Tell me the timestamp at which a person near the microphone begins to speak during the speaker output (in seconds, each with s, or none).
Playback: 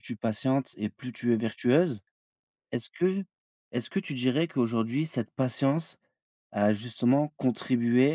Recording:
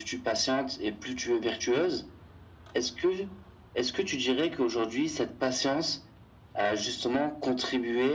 none